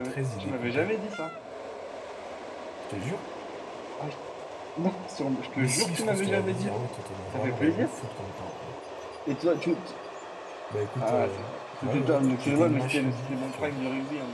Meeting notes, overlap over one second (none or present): present